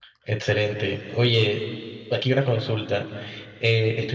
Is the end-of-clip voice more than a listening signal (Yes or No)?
No